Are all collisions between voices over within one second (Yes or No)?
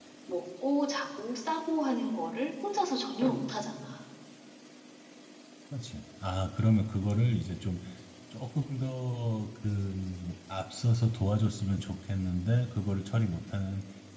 Yes